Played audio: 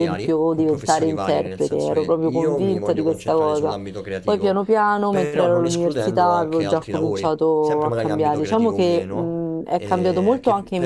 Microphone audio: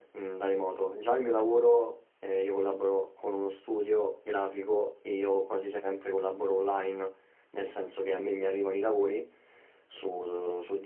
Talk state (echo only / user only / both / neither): user only